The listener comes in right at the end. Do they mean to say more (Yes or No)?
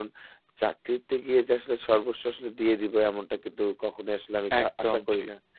No